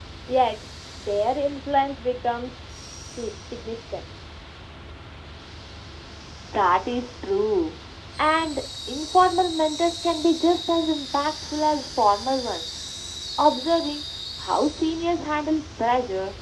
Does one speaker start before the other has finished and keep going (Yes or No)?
No